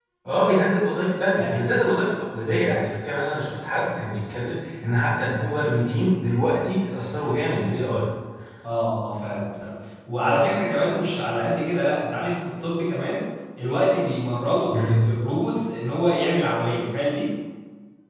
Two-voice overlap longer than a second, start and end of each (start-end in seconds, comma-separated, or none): none